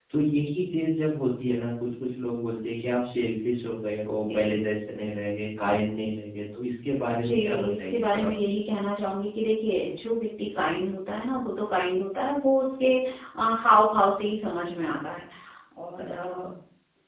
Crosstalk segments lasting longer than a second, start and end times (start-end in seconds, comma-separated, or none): 7.2-8.5